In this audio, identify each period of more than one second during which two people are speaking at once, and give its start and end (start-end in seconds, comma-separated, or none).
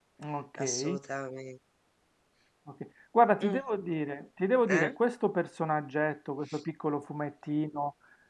none